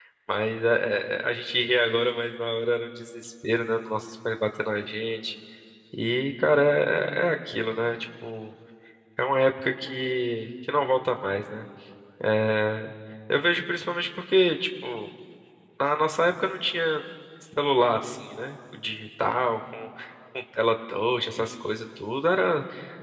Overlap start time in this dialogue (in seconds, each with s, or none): none